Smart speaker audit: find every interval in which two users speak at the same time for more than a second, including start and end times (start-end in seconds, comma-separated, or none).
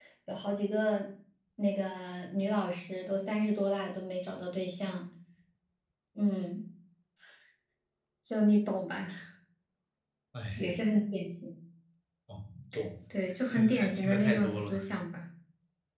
13.5-14.7